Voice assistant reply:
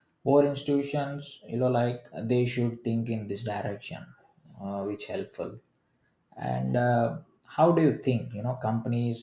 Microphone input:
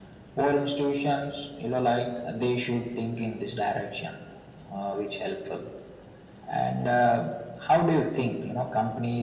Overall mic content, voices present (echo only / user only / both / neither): echo only